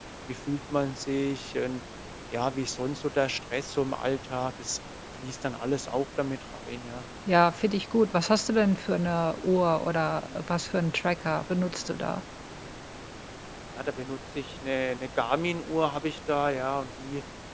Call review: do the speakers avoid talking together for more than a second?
Yes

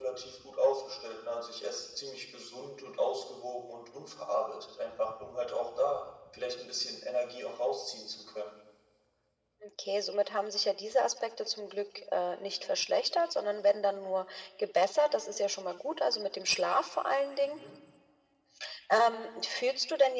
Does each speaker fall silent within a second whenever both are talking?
Yes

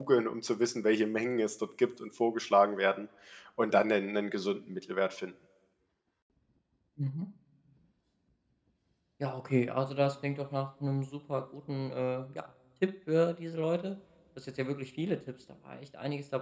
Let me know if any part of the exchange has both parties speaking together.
No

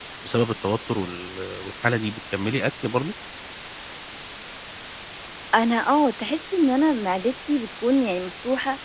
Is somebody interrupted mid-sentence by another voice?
No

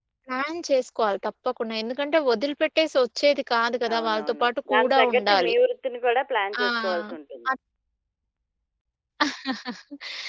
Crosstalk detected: Yes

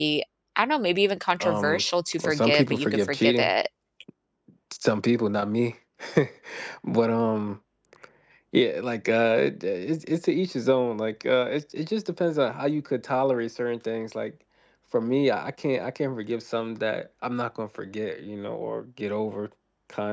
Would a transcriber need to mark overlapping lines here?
Yes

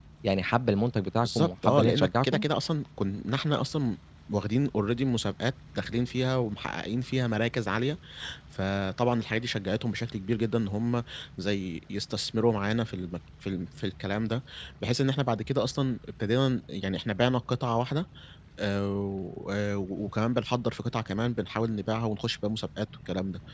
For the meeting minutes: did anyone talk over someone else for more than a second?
Yes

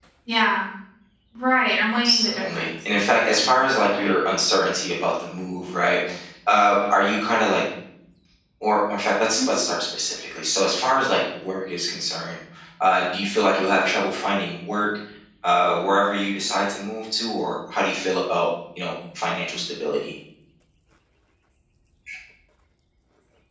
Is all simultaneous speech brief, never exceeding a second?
No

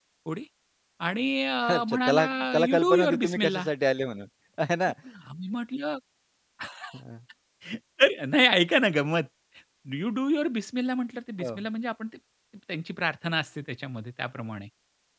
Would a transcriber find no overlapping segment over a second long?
No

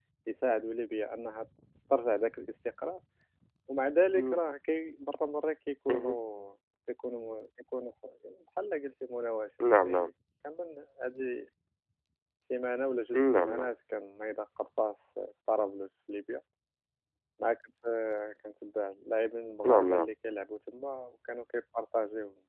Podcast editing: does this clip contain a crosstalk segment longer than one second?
No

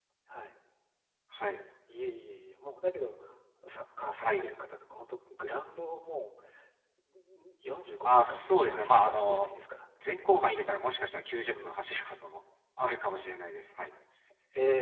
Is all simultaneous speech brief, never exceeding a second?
No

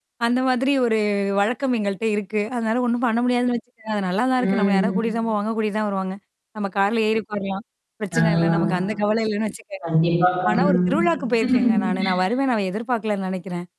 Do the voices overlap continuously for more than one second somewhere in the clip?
No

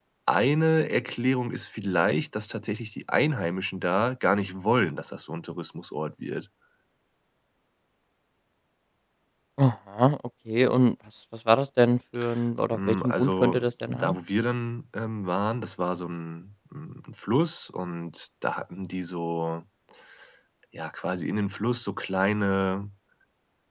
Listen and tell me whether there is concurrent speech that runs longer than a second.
Yes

